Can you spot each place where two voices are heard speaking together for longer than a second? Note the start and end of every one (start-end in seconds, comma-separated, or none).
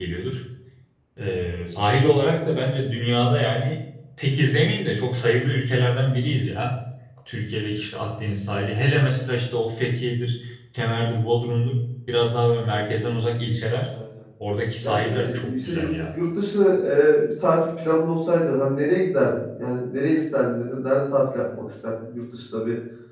14.8-16.1